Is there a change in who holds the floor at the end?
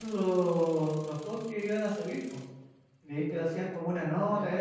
No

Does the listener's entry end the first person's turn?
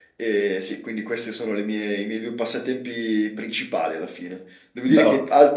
No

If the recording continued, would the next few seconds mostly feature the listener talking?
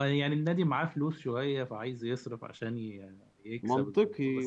Yes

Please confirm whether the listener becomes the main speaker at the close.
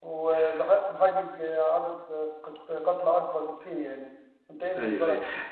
Yes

